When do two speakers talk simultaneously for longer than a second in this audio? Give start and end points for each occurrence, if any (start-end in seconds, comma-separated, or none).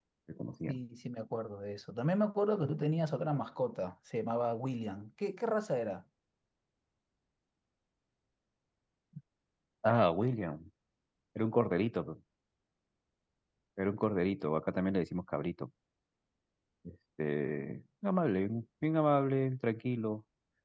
none